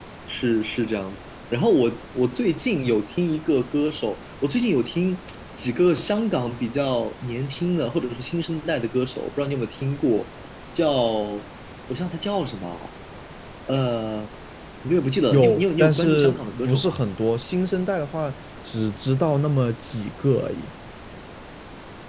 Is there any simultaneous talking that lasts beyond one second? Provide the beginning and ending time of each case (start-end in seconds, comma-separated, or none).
15.3-16.9